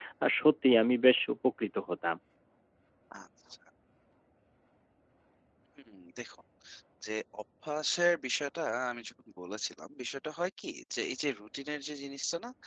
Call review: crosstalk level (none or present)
none